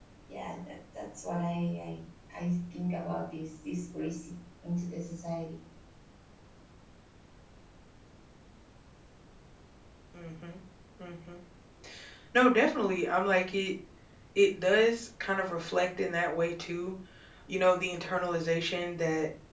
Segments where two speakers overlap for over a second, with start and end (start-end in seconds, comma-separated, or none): none